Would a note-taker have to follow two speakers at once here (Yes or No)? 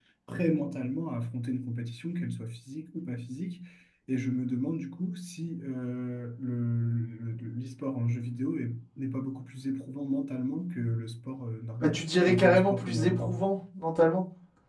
Yes